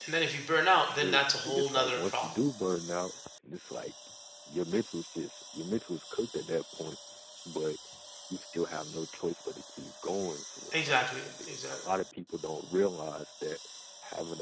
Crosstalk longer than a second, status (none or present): present